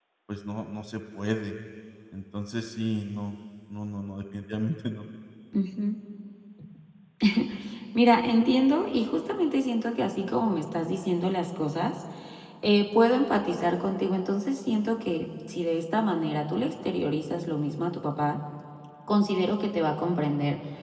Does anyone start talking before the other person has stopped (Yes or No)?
No